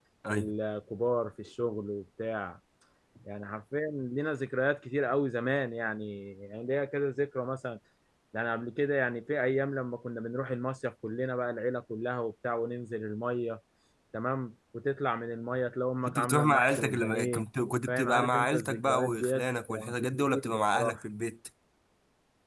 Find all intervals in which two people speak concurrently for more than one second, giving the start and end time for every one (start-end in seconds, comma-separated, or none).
16.1-17.4, 17.9-21.0